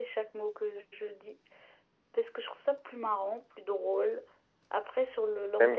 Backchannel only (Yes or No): No